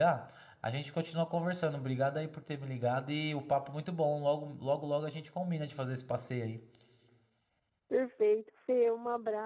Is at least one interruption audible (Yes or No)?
No